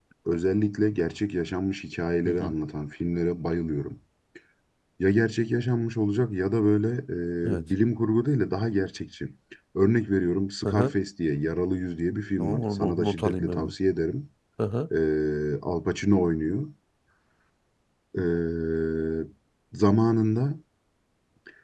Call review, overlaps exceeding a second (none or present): present